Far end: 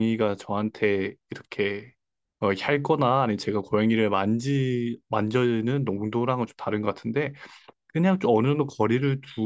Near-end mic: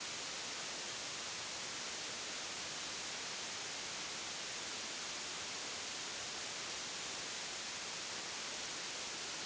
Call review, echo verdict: none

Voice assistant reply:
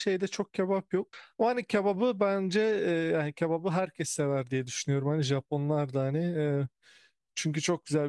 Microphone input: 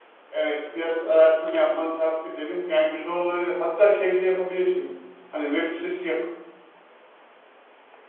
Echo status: none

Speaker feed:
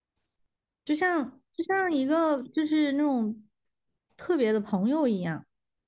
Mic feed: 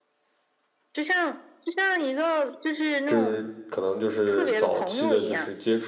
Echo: present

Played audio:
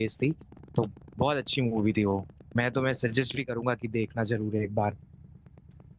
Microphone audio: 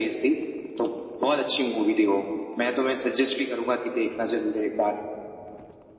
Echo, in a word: present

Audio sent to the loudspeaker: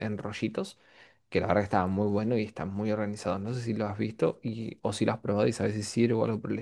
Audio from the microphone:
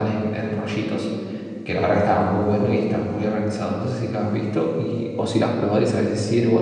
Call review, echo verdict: present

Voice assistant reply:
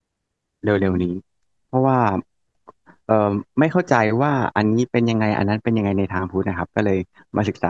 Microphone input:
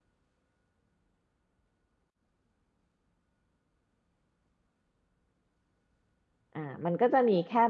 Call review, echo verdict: none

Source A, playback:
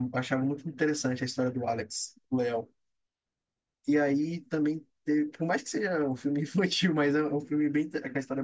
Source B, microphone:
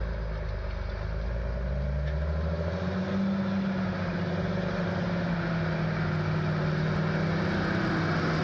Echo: none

